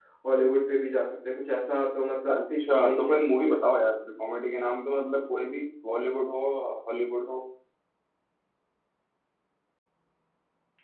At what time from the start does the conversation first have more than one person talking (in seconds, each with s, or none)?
2.3 s